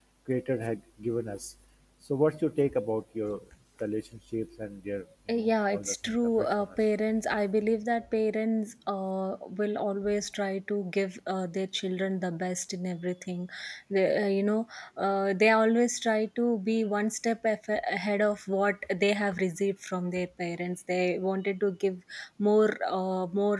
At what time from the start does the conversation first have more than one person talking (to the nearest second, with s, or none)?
5 s